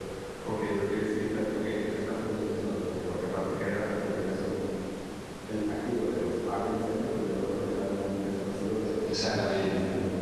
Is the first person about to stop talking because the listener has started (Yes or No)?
Yes